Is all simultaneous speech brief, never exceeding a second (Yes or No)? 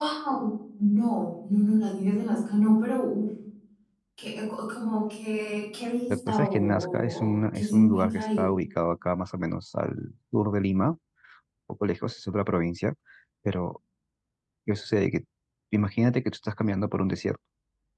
No